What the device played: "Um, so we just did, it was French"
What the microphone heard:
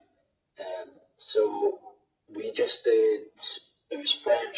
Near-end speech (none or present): none